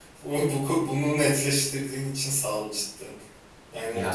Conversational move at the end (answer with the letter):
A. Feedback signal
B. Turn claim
A